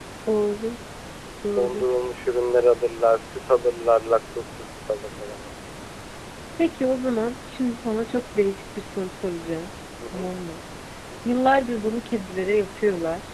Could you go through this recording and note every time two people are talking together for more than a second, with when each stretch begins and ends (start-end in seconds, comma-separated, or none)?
none